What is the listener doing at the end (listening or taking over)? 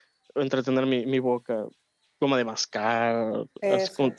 listening